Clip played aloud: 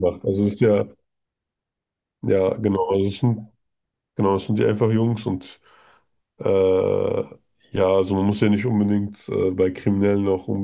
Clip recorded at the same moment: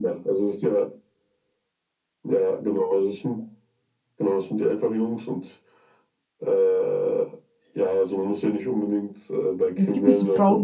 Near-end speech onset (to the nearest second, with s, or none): 10 s